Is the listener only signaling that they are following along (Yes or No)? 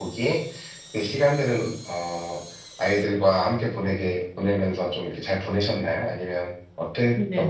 No